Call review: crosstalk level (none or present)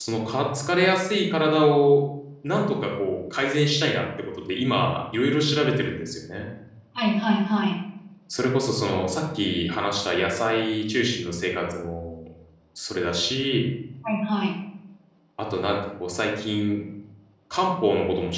none